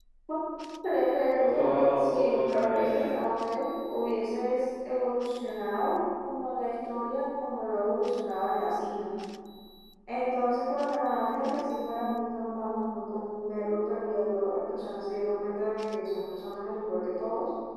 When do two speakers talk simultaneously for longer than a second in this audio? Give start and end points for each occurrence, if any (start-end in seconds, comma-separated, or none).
1.4-3.0